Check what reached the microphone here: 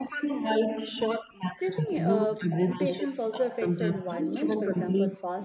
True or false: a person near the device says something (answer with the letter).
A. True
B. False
A